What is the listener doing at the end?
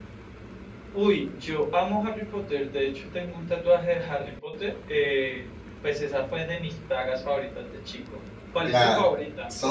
taking over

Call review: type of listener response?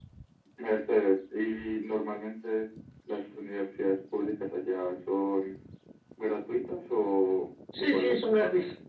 taking over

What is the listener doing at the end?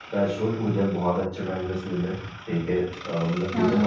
listening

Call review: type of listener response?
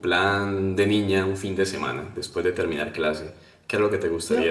taking over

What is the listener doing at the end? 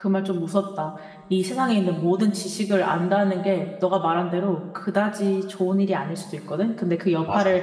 listening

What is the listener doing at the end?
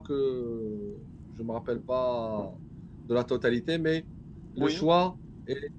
listening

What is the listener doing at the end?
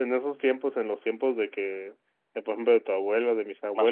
listening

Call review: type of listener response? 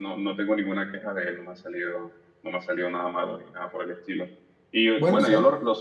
listening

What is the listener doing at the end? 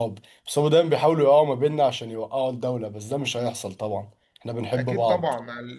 taking over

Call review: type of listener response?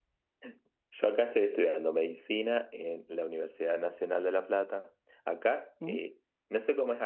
listening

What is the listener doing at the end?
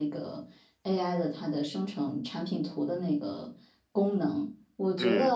listening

